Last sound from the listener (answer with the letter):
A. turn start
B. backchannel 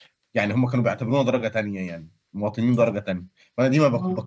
B